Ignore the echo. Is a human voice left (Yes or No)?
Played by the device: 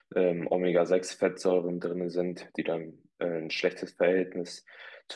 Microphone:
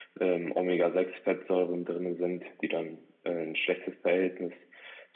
No